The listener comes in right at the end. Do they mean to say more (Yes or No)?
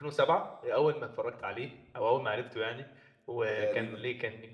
No